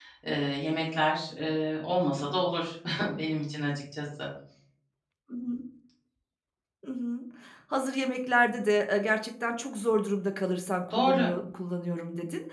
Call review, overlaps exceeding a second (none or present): none